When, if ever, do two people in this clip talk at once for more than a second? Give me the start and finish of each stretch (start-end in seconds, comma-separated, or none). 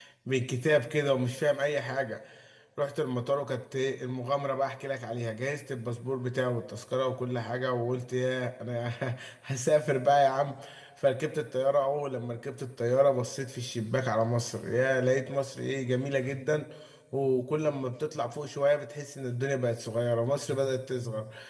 none